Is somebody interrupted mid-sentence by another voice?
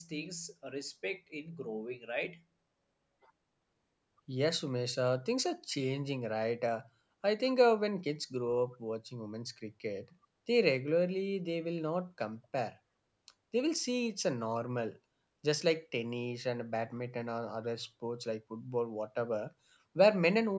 No

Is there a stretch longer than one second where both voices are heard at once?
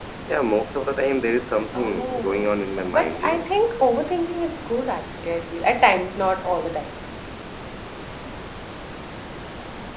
Yes, from 1.7 s

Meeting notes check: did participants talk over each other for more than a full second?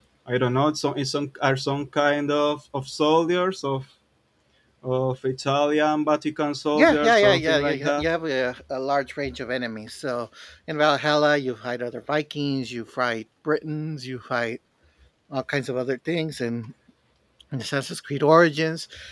Yes, from 6.7 s

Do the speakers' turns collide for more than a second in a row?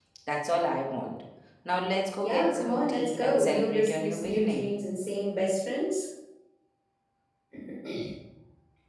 Yes, from 2.2 s

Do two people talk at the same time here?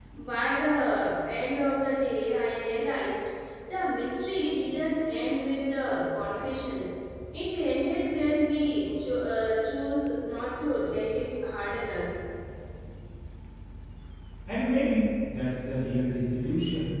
No

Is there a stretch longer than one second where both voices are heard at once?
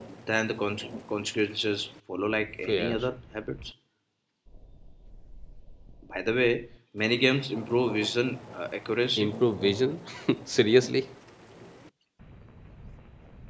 No

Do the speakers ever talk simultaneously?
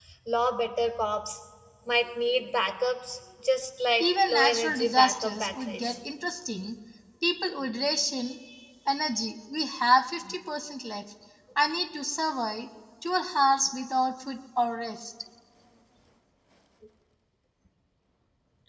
Yes, from 4.0 s

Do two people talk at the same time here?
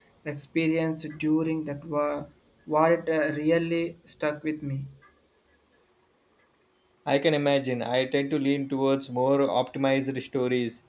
No

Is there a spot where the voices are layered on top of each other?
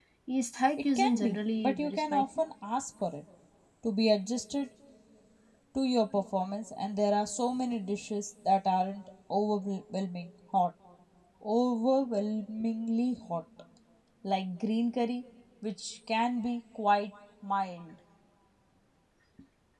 Yes, from 1.0 s

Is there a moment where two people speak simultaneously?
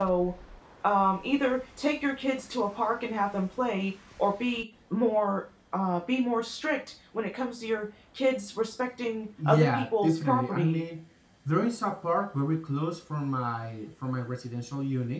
Yes, from 9.4 s

